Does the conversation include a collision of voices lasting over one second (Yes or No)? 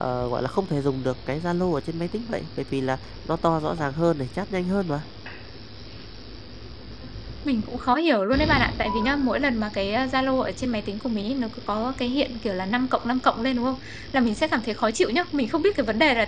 No